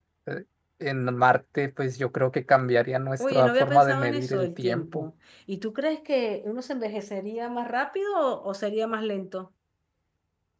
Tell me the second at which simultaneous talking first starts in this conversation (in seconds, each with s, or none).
3.2 s